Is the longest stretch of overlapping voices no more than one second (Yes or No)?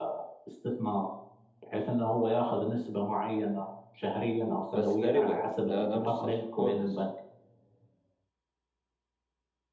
No